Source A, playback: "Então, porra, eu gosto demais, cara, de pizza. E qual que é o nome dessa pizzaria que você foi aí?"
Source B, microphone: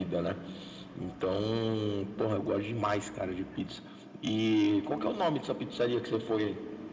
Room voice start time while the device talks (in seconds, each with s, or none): none